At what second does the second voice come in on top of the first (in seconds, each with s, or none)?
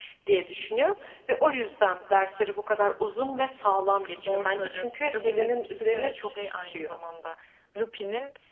4.2 s